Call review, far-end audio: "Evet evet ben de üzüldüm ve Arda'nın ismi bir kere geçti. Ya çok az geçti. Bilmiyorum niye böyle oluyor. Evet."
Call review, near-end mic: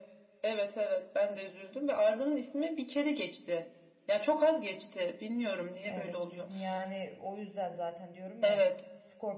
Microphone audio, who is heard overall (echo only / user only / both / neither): both